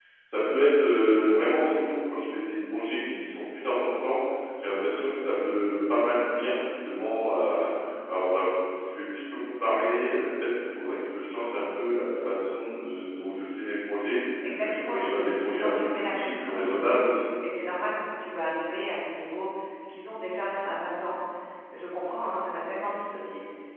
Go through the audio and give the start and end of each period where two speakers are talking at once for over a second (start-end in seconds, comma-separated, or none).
14.6-17.2